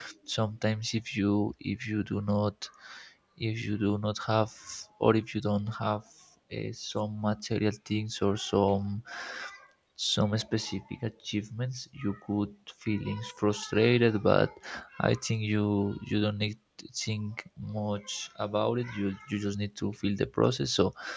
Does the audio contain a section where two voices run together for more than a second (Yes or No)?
No